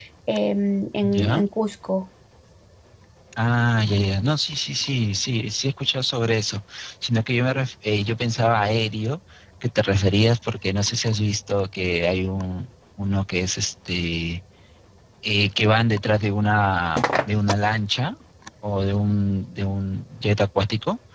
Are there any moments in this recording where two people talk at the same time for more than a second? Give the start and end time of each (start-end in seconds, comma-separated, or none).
none